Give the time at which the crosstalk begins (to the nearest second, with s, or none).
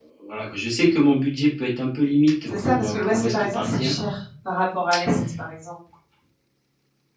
2 s